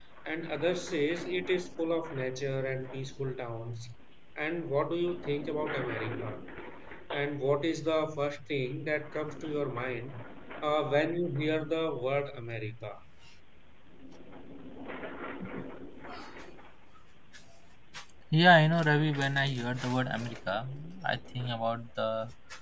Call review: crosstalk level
none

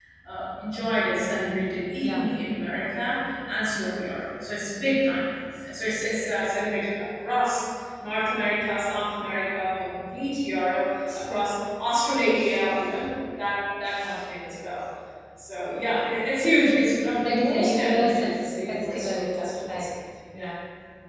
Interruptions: present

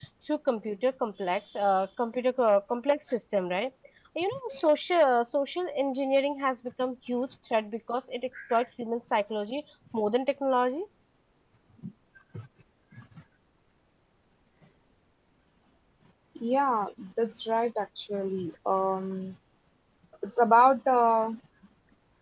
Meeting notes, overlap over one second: none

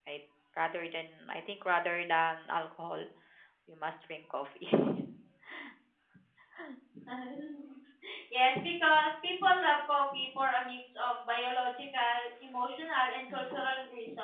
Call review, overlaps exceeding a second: none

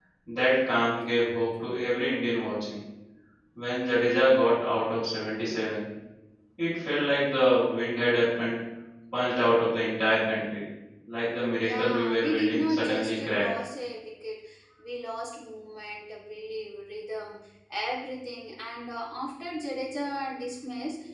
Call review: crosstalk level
present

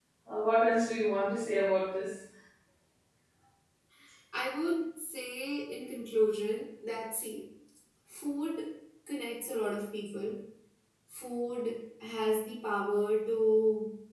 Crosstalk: none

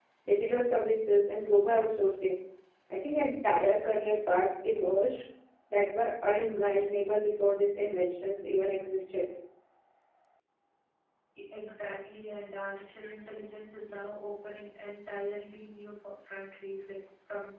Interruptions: none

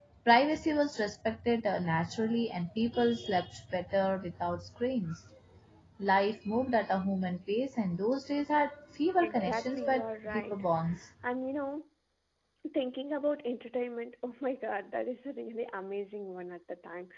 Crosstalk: present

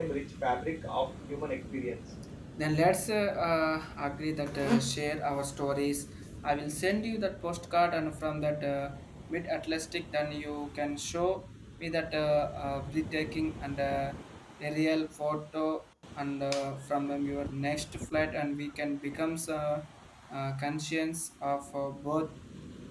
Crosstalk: none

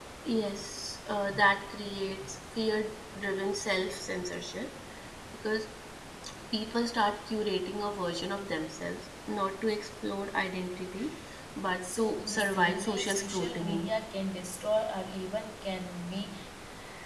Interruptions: present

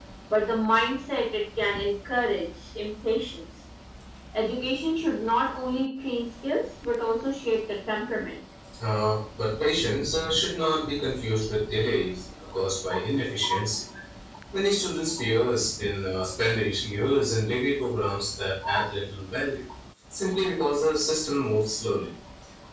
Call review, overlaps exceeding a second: none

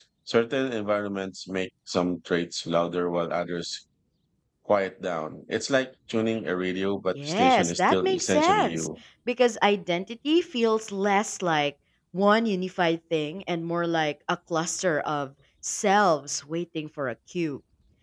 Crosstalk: present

